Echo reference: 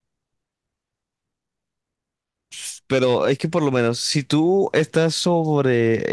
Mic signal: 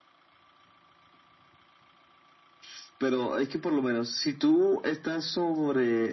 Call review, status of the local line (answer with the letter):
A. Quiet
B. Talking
A